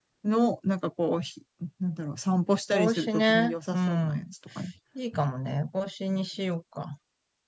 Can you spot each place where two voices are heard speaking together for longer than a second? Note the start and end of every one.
2.7-4.2

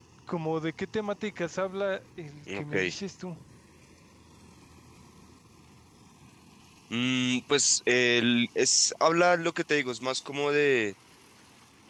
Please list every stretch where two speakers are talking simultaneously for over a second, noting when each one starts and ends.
none

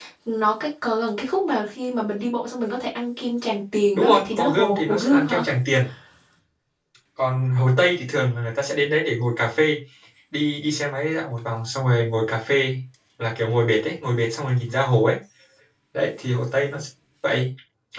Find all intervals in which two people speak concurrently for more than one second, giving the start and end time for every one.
3.9-5.4

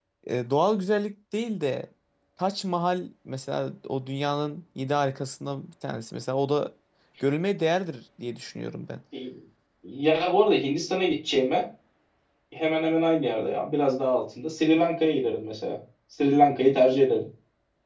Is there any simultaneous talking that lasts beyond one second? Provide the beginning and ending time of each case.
none

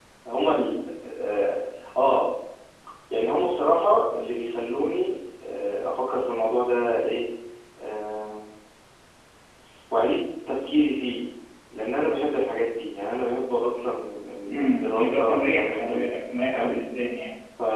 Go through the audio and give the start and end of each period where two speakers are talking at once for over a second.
14.5-16.1

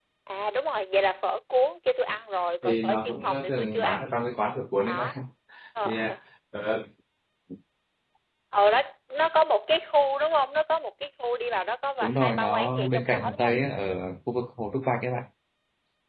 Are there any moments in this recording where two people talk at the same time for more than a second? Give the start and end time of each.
2.6-4.1, 12.0-13.6

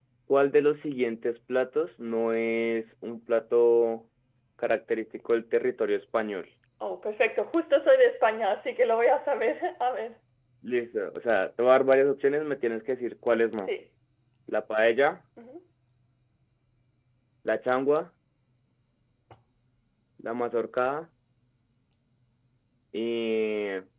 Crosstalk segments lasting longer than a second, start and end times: none

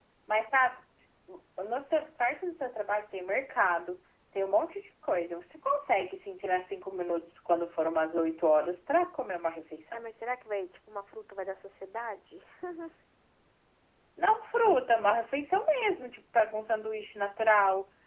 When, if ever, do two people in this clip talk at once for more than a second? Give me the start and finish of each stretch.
none

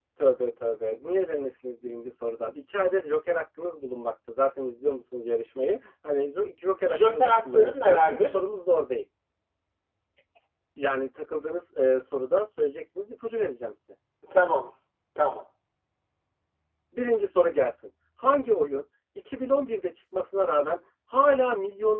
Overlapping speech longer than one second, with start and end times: 6.8-8.4

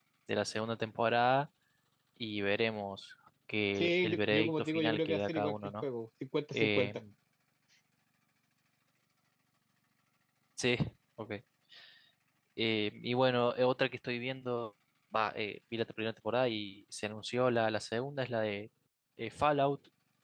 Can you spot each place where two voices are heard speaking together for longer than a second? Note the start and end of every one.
3.8-5.8

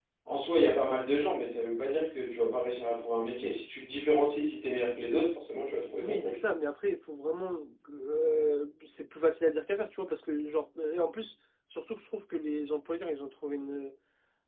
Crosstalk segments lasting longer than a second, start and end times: none

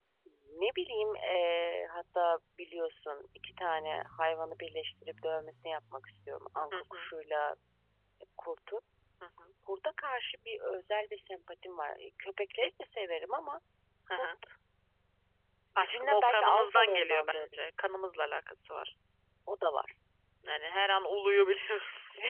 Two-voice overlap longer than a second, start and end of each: 15.8-17.4

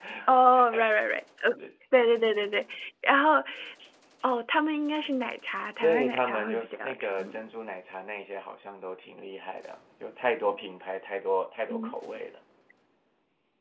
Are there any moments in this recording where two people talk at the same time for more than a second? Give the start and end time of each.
5.8-7.4

